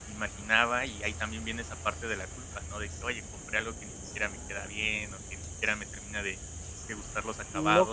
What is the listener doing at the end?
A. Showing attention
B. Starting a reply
B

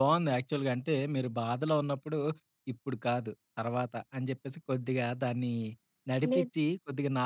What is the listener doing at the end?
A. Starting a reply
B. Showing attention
B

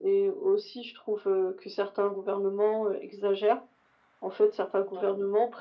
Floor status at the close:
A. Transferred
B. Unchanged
B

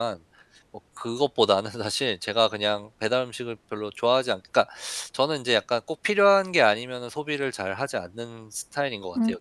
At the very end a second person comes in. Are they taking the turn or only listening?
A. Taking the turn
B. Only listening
A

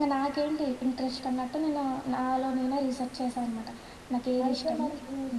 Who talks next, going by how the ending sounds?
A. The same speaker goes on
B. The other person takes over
B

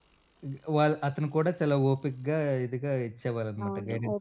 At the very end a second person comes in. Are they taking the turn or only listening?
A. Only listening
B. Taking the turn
B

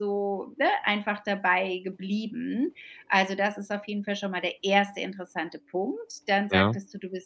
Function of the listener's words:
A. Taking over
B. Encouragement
B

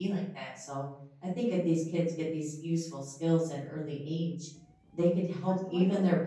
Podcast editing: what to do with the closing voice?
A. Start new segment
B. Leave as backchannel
B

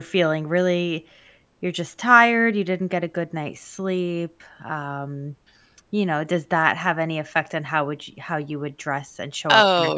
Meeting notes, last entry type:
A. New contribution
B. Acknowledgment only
A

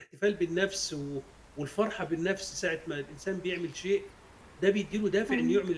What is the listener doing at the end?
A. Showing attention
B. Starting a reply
A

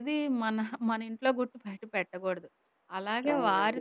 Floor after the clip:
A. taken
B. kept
B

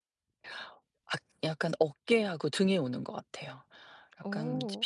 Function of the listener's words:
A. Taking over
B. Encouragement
B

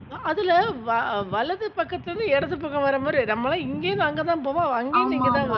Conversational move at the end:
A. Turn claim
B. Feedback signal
A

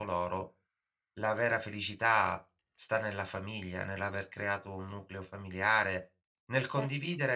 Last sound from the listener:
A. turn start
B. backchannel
B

